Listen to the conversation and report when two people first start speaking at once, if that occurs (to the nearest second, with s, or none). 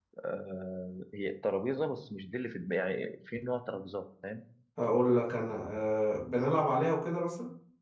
none